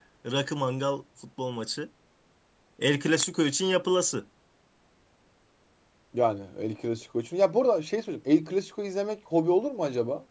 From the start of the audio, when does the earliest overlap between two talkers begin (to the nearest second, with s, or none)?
none